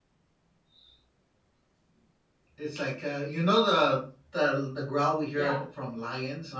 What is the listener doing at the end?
listening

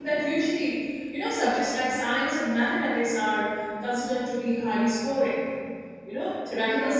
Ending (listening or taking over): listening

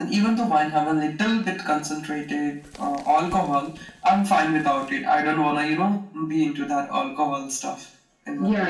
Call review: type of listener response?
taking over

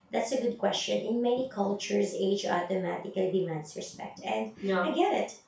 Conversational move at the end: listening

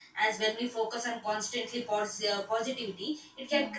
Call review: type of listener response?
listening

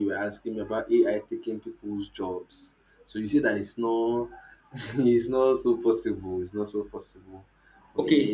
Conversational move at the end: taking over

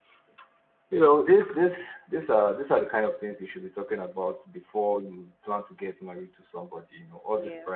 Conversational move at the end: listening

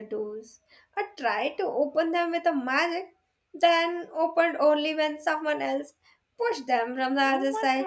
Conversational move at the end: taking over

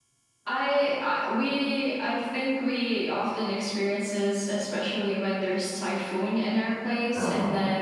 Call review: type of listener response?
listening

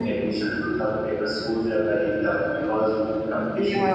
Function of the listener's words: listening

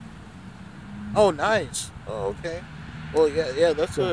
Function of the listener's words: listening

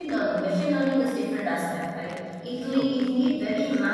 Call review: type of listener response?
listening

